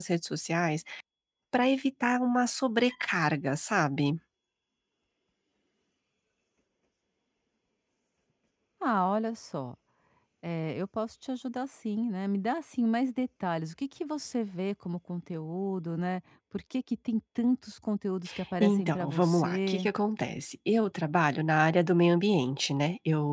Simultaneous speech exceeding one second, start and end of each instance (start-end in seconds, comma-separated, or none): 18.6-19.9